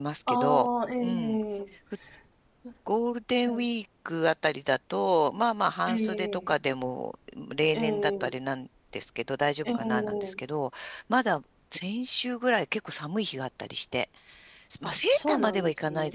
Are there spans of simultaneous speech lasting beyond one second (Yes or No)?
Yes